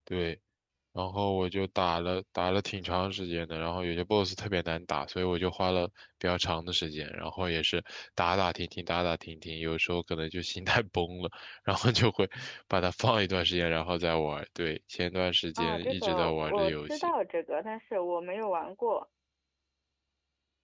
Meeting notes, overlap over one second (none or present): present